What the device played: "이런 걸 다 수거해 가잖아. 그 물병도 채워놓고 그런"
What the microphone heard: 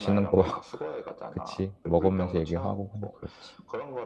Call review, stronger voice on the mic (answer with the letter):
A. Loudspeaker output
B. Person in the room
B